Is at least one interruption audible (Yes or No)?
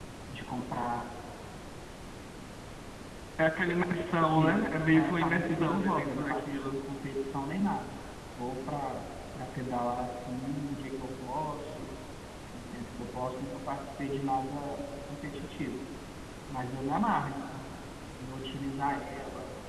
Yes